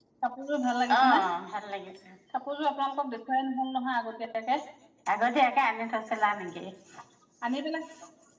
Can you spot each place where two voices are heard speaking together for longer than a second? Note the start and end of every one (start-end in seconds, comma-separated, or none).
none